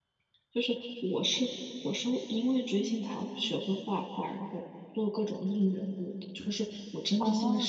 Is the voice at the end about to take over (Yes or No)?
Yes